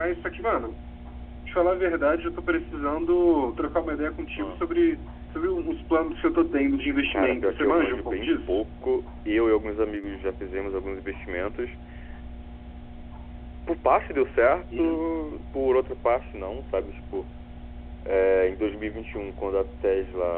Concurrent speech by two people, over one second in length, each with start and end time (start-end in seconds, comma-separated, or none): 7.1-8.6